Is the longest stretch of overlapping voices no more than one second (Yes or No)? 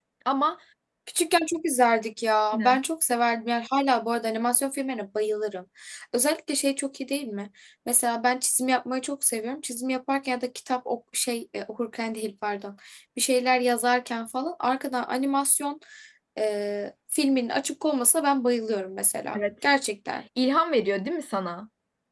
Yes